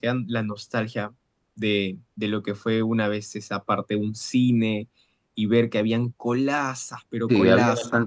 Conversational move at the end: taking over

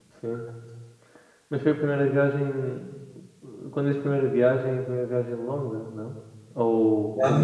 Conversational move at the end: taking over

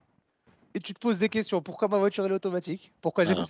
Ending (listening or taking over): listening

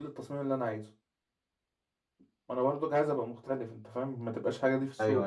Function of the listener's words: taking over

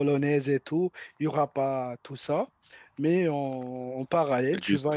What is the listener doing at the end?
listening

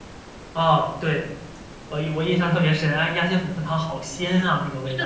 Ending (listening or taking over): taking over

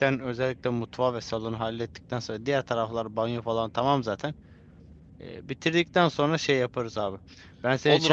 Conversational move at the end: taking over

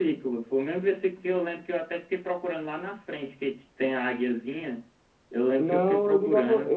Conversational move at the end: taking over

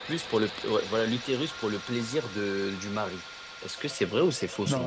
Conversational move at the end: taking over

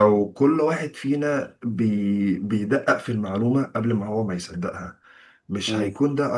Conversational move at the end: listening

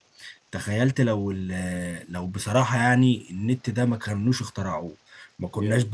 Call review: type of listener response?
listening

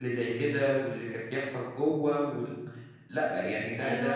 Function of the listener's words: taking over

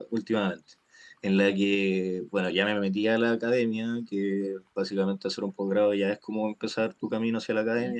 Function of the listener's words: listening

